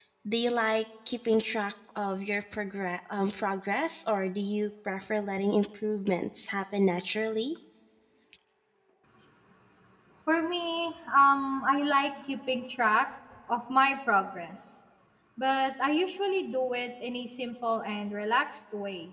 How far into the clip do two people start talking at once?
none

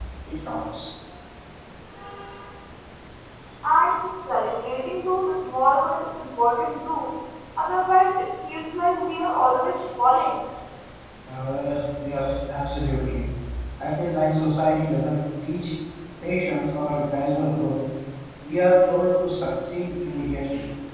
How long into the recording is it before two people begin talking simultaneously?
none

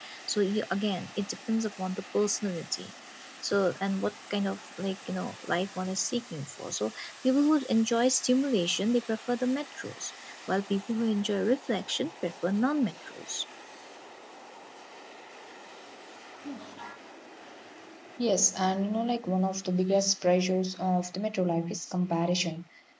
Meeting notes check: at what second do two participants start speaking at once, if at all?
none

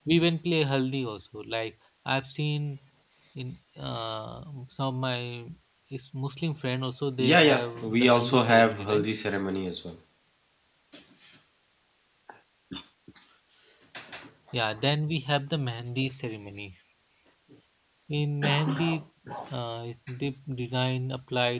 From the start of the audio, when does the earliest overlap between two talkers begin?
7.2 s

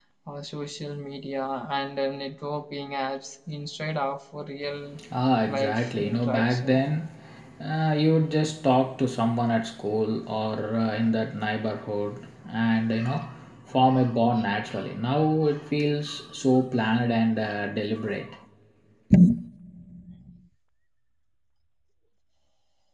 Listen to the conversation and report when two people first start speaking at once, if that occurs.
5.5 s

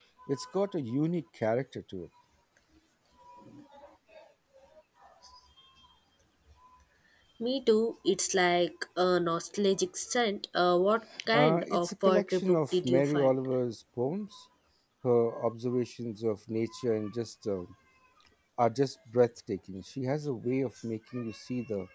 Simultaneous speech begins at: 11.1 s

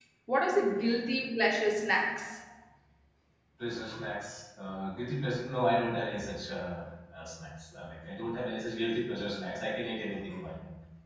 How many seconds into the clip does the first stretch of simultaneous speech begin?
none

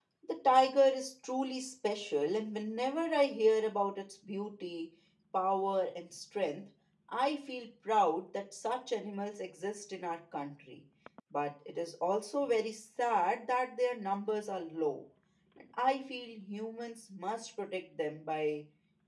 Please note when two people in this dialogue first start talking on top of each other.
none

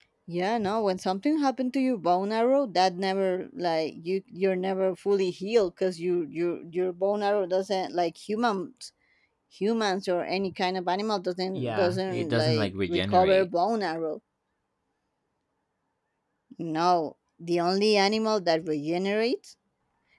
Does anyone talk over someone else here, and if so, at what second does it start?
11.6 s

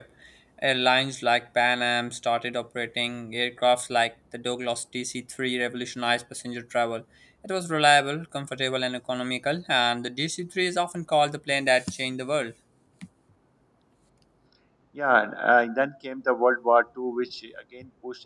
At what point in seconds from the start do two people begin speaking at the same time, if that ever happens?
none

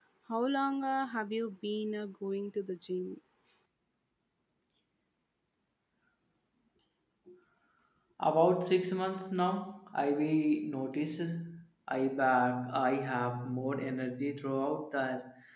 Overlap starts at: none

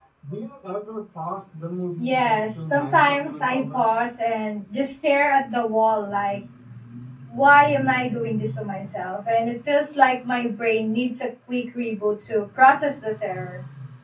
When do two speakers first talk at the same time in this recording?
2.0 s

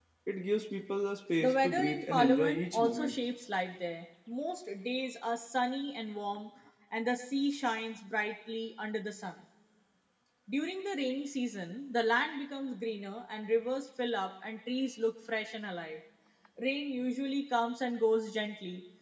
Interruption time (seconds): 1.4 s

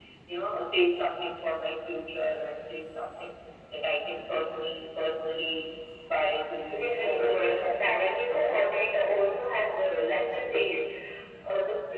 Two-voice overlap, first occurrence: 6.7 s

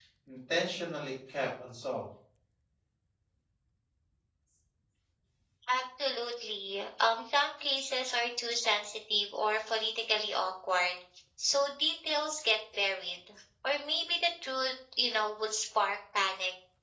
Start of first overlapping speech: none

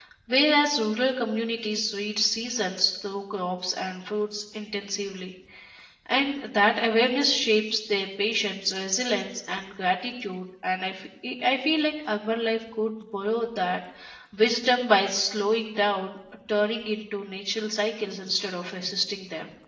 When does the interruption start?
none

